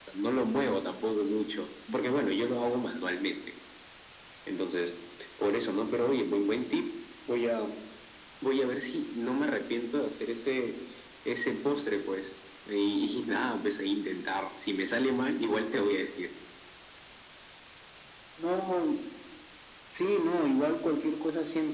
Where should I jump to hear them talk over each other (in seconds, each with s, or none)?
none